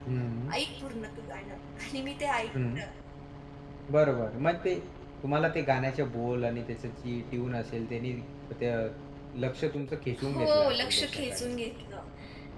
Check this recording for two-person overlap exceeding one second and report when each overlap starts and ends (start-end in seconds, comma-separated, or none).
10.3-11.5